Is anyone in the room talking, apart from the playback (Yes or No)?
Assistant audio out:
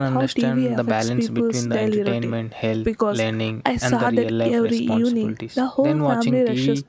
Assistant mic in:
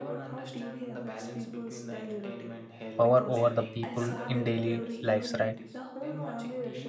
Yes